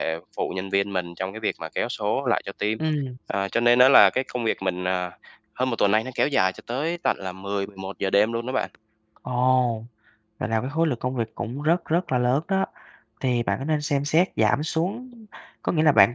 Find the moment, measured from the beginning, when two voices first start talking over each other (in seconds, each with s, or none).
none